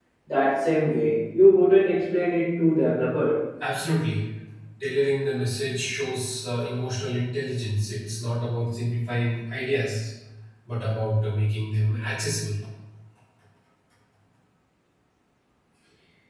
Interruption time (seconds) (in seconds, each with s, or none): none